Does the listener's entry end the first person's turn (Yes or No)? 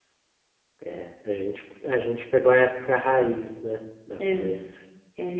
Yes